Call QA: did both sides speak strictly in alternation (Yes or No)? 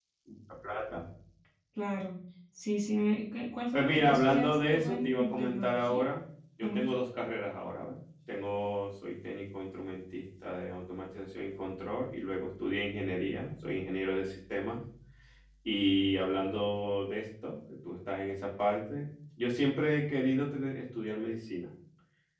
No